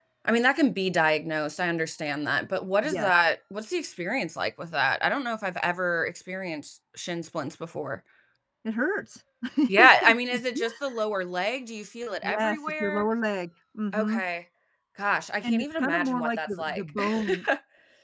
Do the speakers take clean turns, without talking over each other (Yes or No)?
No